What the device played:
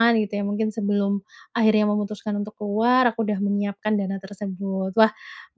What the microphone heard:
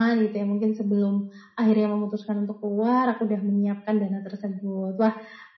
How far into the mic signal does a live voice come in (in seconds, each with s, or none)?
none